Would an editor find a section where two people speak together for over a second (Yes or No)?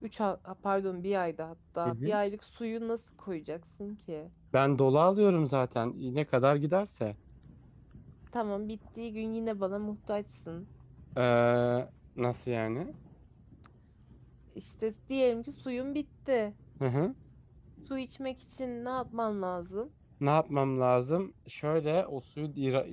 No